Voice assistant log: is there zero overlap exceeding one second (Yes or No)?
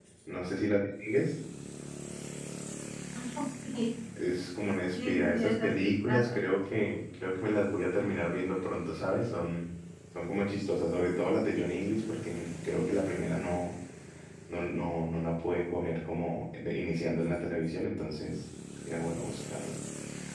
No